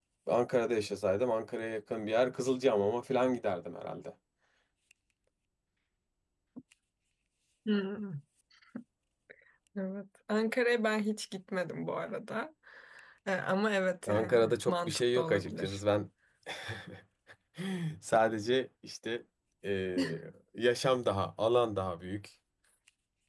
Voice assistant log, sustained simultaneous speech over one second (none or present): present